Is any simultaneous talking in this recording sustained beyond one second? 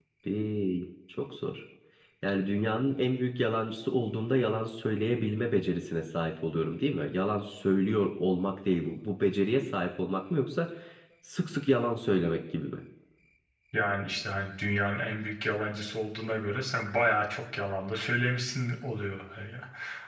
No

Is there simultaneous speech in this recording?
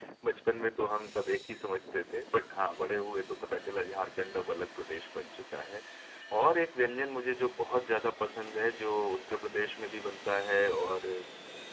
No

